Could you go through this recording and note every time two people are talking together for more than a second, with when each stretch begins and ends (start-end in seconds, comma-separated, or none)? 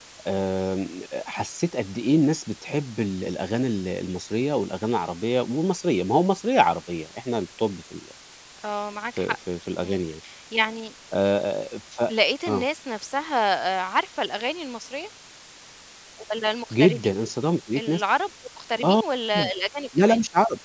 none